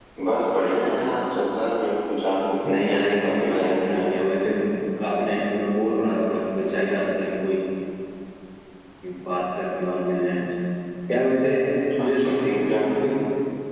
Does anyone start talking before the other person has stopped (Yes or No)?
Yes